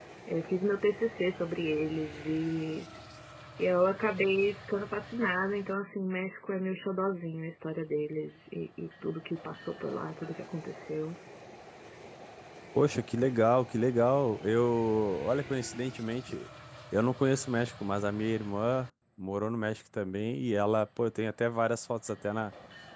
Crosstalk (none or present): none